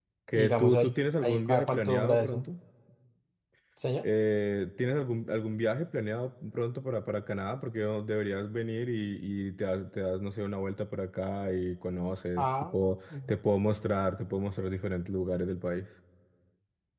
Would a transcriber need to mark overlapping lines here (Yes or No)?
Yes